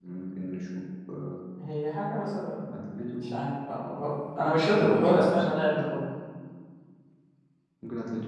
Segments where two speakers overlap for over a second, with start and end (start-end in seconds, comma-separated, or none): 4.7-5.9